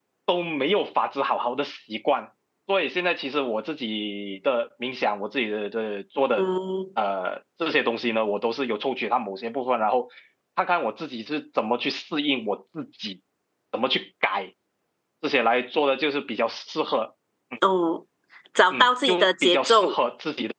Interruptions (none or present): present